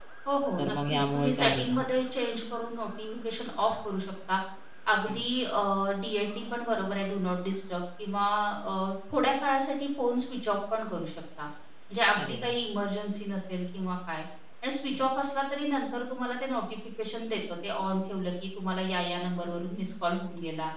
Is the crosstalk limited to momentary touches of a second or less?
No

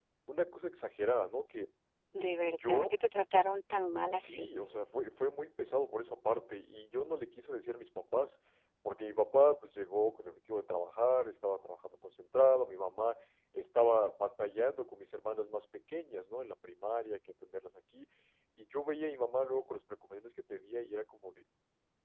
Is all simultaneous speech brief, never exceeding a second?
Yes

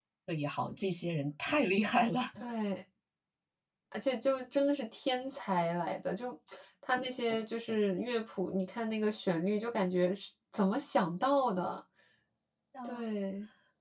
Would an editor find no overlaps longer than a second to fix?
Yes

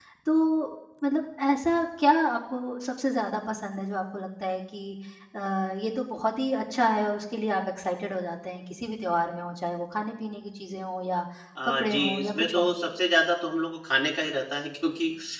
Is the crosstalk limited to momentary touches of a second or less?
No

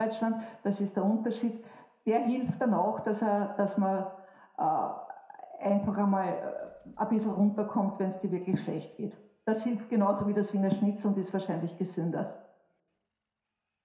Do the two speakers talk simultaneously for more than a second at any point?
No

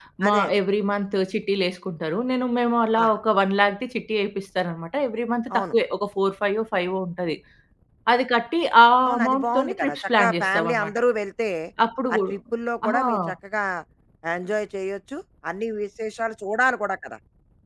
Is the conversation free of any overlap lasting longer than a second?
No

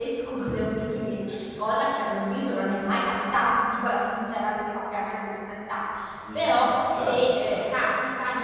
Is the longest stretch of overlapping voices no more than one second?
No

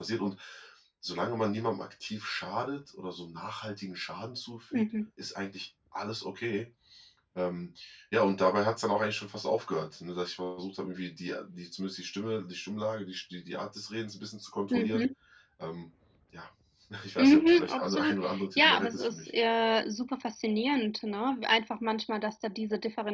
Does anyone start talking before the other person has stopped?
Yes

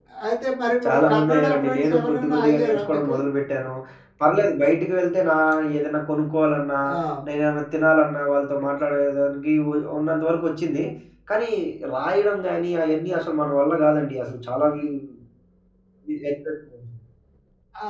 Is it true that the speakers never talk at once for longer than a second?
No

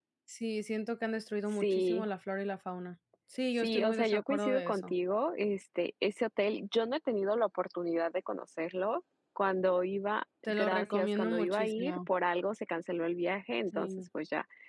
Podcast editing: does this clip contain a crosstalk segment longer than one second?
Yes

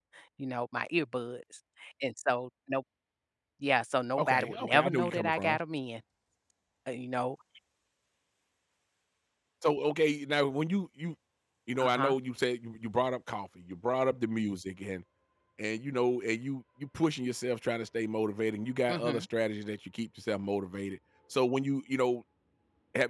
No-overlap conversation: No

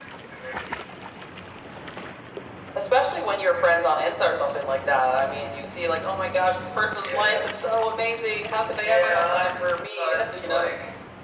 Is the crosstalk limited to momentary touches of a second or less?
No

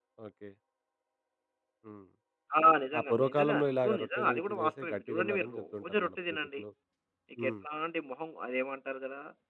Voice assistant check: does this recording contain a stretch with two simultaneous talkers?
Yes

